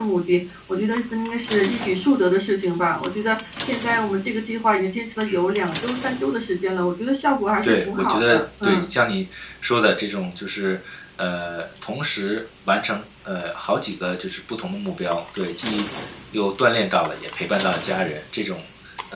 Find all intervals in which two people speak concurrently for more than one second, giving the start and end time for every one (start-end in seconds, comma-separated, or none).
7.6-8.9